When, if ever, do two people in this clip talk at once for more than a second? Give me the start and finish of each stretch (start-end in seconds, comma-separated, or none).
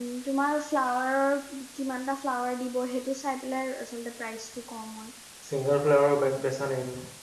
none